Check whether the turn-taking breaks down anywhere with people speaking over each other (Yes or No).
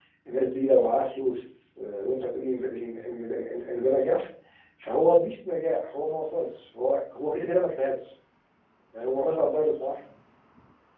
No